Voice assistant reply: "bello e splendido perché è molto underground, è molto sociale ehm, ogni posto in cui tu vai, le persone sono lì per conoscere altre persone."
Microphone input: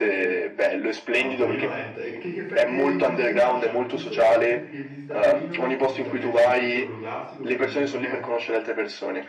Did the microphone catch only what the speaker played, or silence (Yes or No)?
No